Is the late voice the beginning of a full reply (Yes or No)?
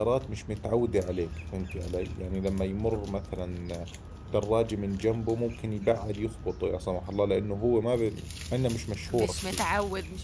Yes